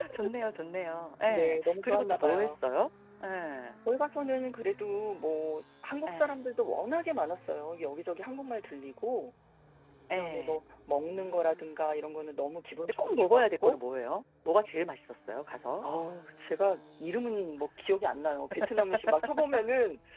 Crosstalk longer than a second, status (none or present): present